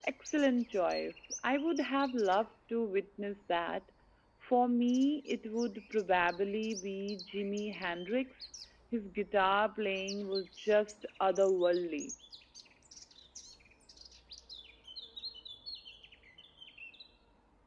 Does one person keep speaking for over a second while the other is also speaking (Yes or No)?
No